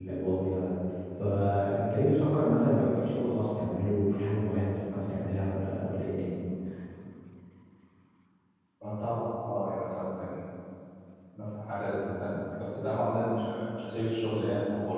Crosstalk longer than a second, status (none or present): none